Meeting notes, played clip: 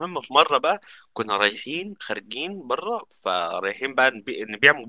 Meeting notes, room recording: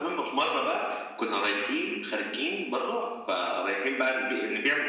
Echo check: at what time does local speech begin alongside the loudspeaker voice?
none

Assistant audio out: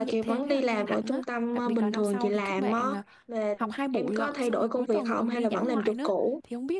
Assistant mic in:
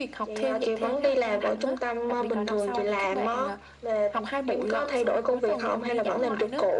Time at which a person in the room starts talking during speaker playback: none

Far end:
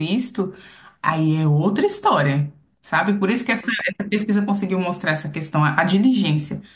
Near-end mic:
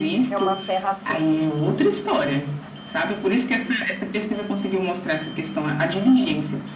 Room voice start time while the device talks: 0.3 s

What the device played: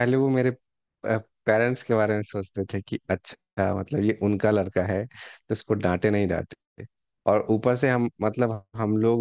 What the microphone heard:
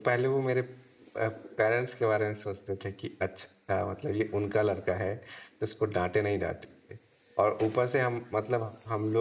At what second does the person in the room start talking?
none

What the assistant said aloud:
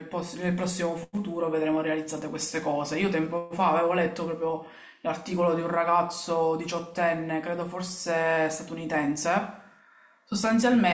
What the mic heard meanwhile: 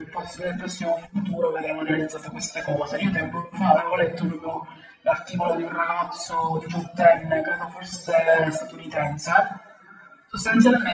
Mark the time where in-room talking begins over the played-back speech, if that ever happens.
none

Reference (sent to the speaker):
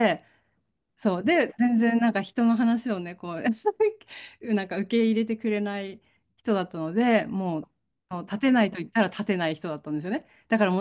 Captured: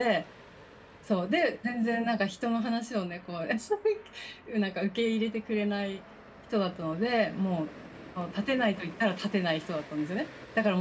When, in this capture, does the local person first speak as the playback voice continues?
none

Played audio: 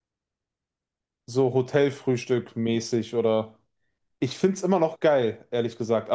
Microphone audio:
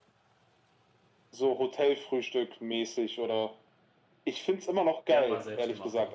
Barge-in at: 5.1 s

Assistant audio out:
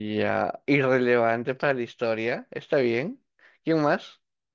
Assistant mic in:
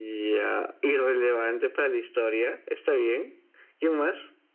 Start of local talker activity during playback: none

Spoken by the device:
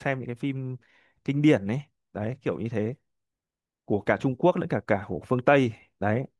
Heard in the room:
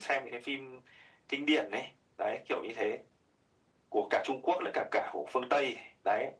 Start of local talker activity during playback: none

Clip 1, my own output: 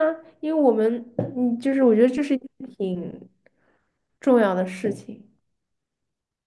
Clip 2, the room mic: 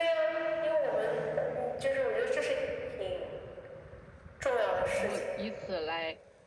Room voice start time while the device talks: 4.9 s

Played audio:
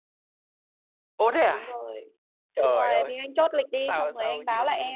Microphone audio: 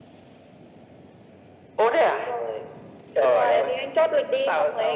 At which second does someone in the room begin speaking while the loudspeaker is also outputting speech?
none

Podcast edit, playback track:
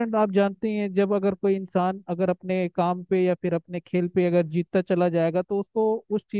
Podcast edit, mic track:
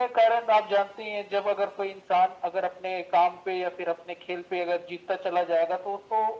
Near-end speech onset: none

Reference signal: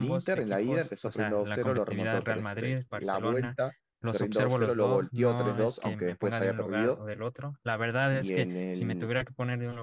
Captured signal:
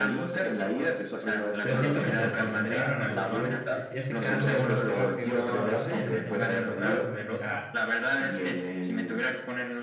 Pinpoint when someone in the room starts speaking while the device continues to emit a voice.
1.6 s

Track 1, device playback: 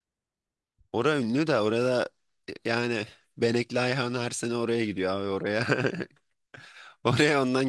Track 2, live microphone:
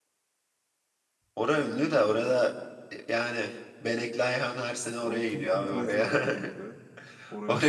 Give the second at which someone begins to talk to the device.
5.0 s

